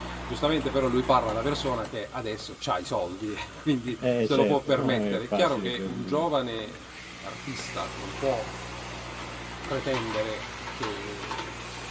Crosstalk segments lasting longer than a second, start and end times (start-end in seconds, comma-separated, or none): 4.0-6.2